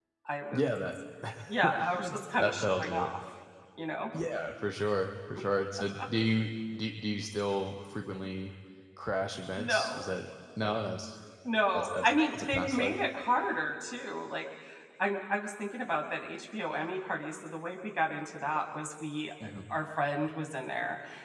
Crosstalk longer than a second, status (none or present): present